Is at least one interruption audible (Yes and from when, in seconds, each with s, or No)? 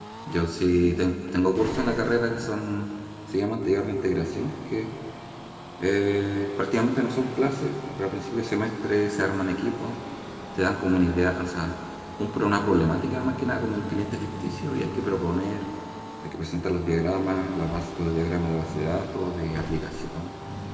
No